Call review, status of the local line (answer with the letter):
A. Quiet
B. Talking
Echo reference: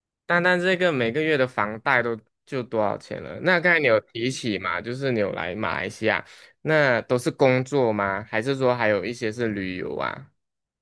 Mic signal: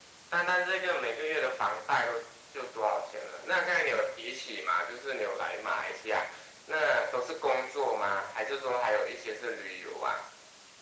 A